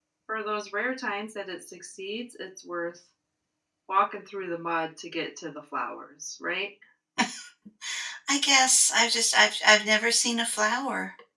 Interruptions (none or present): none